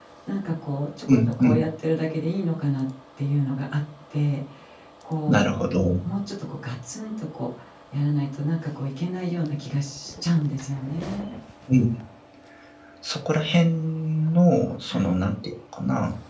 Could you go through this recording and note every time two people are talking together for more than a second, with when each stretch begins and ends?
none

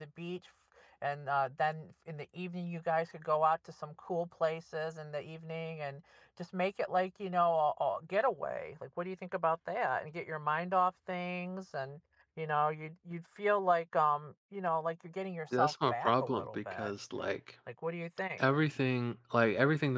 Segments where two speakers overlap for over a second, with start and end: 15.6-16.9

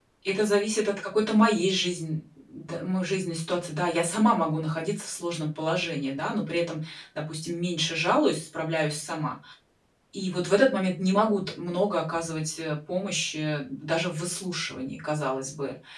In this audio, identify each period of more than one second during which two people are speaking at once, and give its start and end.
none

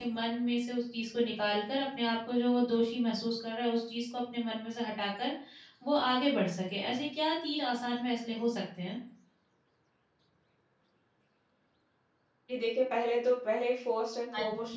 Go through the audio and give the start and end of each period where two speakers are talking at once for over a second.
none

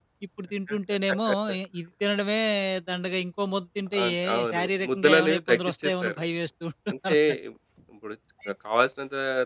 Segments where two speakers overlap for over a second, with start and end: 4.0-6.2

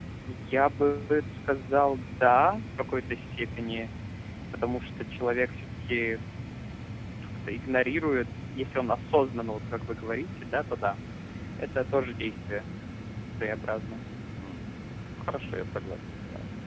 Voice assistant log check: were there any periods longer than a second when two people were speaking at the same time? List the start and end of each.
none

